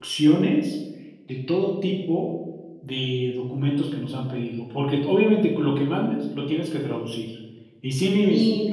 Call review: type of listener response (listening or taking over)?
listening